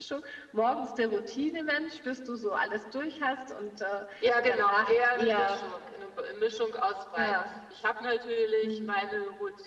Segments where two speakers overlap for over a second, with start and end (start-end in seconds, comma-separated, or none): 4.2-5.6